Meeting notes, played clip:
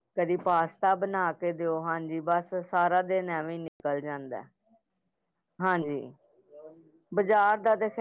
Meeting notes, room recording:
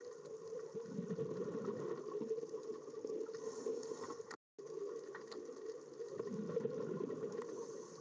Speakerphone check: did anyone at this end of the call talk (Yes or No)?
No